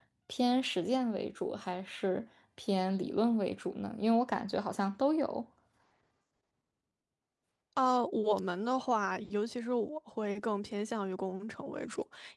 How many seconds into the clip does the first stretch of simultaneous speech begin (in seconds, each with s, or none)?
none